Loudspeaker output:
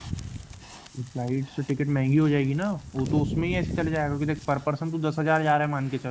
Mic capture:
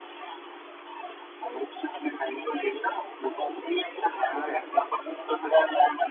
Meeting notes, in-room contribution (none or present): present